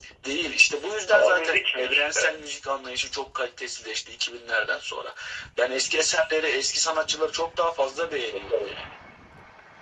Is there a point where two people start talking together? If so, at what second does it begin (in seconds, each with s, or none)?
1.1 s